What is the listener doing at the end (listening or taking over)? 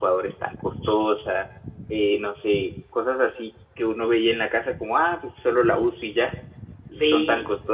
listening